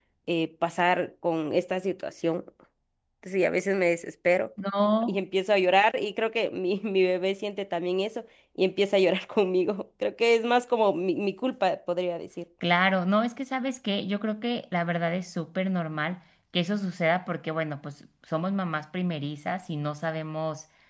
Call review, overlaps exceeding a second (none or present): none